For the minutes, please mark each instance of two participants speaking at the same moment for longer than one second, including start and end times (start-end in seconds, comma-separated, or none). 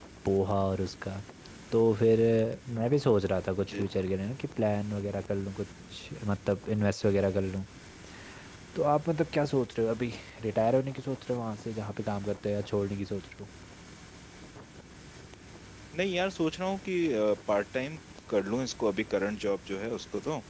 none